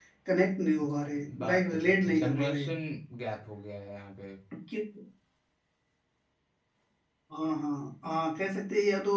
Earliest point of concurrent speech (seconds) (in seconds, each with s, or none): 1.4 s